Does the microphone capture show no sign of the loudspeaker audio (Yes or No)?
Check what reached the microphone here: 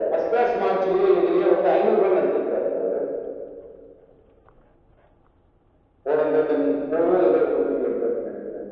No